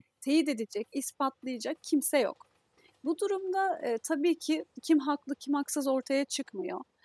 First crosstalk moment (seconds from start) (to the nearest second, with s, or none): none